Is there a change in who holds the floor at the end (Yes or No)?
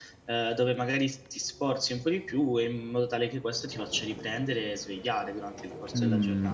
Yes